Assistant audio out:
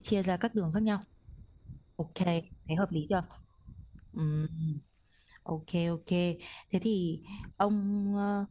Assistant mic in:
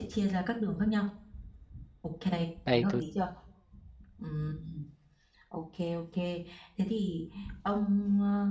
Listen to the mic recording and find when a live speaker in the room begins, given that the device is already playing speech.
2.6 s

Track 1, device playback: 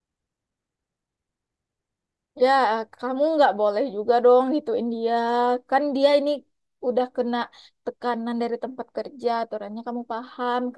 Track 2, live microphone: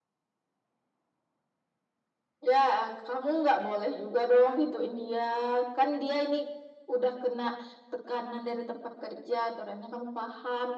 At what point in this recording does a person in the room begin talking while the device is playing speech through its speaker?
none

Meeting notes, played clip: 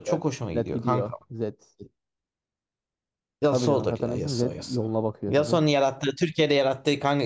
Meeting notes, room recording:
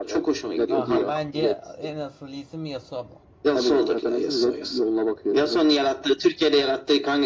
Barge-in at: 0.7 s

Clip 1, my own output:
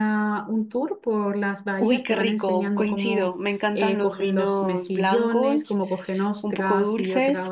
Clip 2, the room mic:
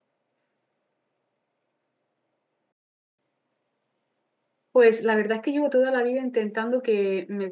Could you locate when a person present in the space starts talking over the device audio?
4.7 s

